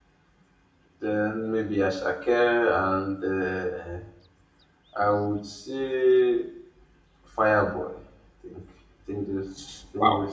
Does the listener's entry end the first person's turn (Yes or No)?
Yes